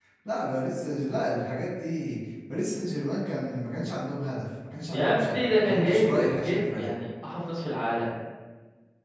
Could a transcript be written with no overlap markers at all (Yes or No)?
No